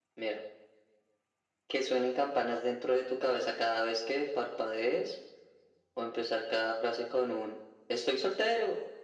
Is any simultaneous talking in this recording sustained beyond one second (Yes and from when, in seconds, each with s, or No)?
No